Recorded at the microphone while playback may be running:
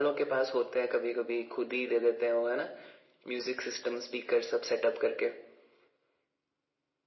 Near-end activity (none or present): none